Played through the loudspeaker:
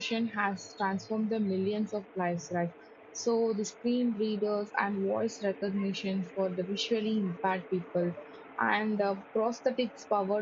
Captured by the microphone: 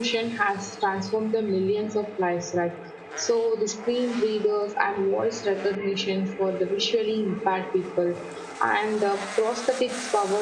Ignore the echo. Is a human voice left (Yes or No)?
No